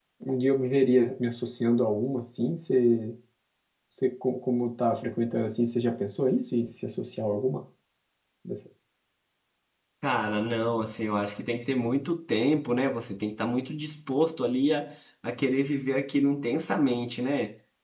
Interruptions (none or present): none